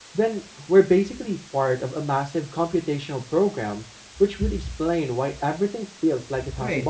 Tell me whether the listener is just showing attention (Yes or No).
No